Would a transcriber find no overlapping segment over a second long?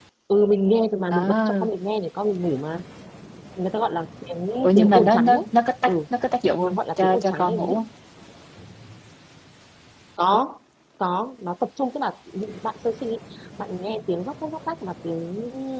No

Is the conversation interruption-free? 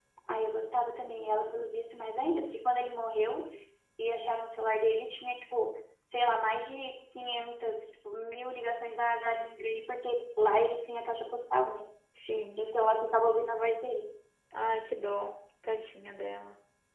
Yes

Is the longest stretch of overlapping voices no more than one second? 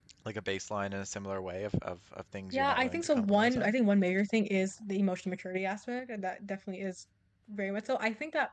No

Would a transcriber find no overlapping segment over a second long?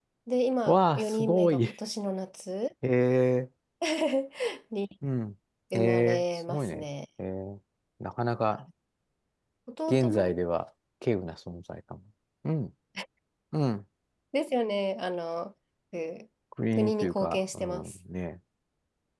No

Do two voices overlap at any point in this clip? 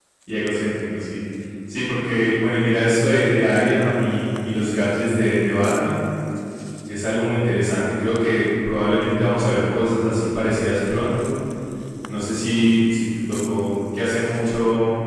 No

